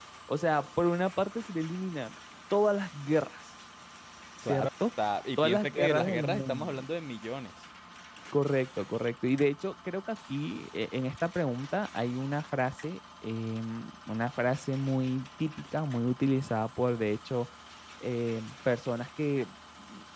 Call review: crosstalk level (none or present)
present